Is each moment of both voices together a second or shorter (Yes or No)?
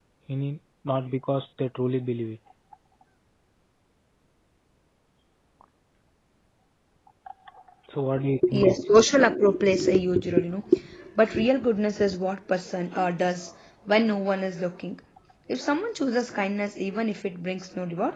Yes